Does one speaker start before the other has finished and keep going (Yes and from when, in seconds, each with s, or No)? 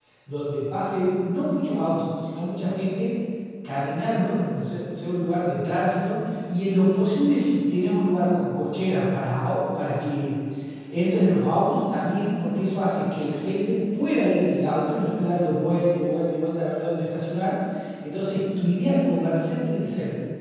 No